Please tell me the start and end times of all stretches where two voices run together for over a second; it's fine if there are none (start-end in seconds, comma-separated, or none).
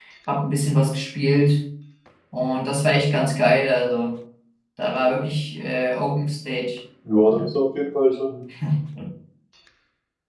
none